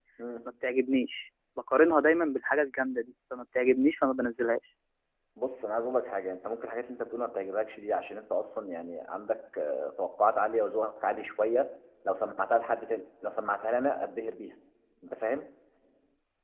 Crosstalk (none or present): none